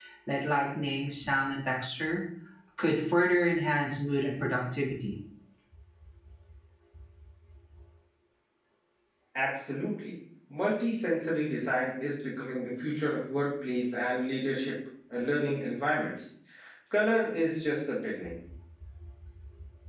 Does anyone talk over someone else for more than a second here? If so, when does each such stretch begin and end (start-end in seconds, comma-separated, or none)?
none